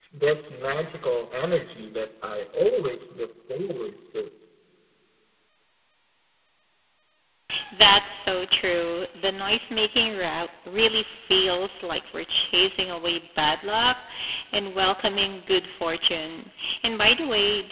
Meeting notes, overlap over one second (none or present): none